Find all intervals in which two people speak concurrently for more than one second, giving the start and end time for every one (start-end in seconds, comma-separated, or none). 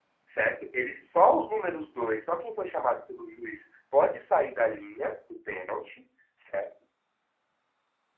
none